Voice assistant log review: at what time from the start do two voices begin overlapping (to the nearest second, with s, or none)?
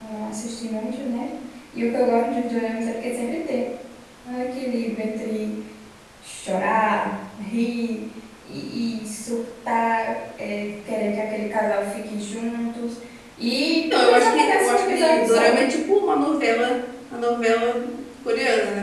14 s